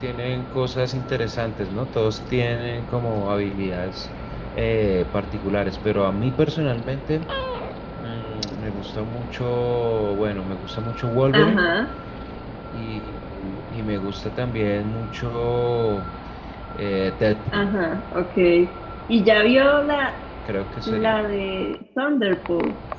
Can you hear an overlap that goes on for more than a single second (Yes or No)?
No